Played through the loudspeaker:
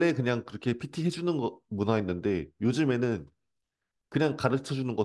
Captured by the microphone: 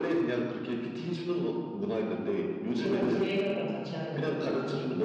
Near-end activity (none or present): present